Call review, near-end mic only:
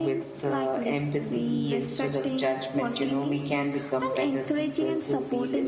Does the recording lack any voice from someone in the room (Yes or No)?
Yes